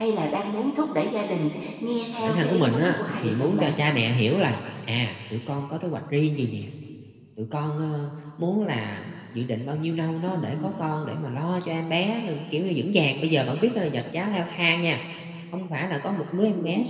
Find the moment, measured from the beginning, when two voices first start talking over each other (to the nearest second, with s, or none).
2 s